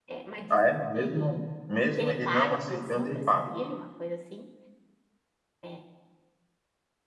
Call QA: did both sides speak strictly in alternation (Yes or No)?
No